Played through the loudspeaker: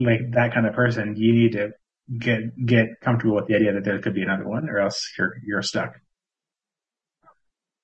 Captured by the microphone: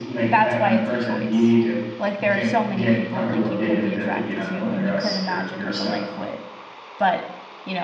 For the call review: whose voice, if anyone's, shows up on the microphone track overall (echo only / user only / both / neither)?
both